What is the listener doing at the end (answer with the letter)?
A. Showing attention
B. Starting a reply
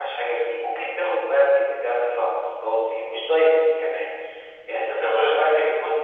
A